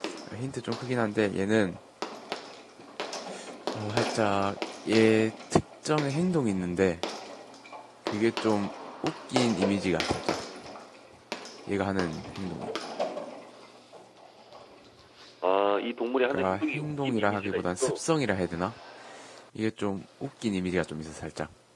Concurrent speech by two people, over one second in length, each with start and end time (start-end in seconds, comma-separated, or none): 16.3-18.0